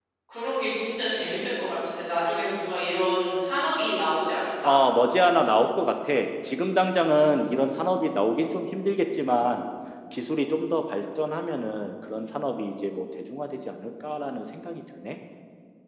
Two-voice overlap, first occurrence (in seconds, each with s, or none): none